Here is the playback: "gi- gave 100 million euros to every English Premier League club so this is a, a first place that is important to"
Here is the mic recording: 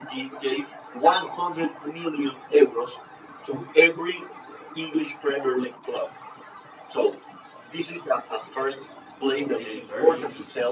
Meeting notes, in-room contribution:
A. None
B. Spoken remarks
B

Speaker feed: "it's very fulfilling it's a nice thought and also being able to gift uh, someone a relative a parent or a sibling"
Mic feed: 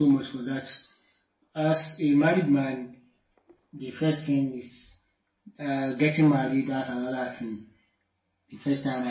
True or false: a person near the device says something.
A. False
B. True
B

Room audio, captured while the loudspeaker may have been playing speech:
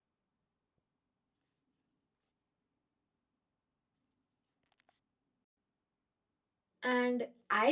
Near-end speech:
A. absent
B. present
B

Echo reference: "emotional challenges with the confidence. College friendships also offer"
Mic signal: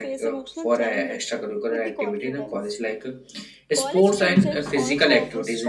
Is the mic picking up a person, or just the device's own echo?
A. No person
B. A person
B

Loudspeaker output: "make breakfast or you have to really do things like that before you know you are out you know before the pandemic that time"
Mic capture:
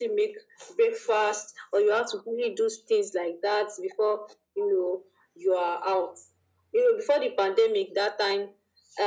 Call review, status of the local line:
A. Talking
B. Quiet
B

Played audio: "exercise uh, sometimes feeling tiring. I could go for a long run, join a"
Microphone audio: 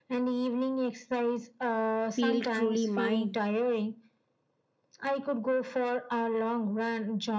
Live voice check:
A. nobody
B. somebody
B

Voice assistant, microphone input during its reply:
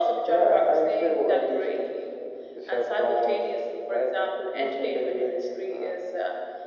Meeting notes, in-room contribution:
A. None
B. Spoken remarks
A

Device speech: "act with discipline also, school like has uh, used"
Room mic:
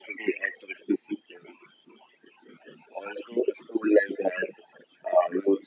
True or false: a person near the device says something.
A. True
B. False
B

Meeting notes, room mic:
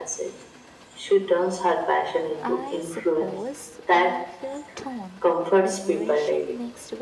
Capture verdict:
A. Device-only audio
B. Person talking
B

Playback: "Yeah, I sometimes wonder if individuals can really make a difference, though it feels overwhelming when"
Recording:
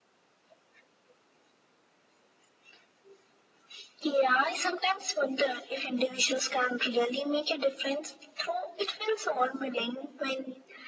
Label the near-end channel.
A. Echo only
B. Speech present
A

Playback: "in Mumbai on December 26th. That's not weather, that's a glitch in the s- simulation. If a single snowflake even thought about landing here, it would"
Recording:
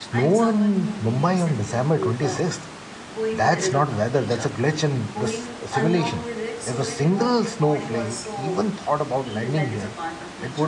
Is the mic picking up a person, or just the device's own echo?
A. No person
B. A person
B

